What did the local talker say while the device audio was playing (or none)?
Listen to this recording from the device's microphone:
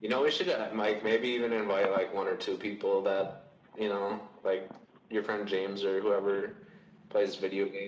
none